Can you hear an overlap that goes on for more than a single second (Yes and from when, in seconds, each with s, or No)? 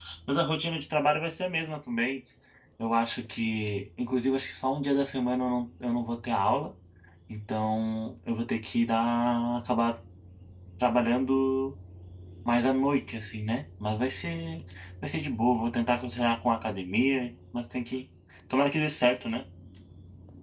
No